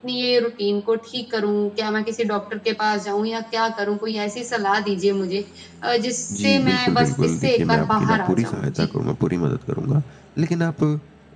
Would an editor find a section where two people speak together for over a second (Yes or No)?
Yes